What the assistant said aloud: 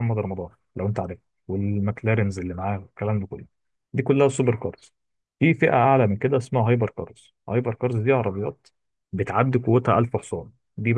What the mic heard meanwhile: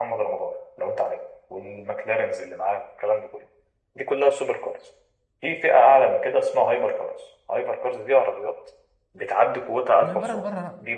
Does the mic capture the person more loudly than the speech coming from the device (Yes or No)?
No